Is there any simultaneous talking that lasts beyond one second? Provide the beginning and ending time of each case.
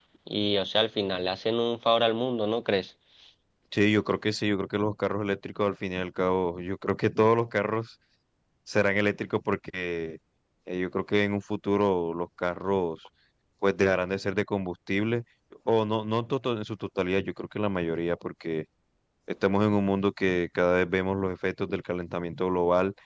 none

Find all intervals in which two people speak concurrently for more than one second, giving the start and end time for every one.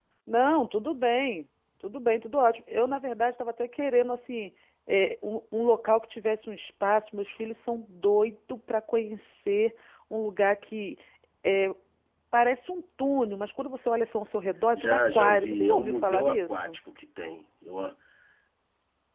14.7-16.8

